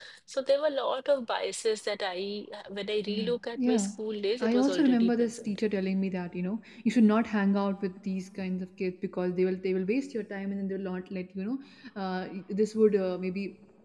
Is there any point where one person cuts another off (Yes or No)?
Yes